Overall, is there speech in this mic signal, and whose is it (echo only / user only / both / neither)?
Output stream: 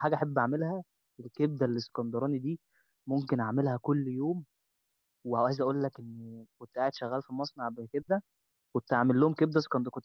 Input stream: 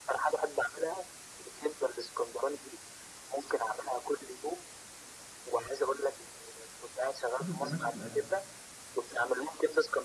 both